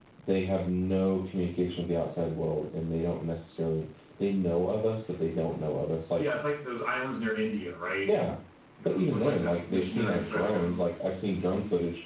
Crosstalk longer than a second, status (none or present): present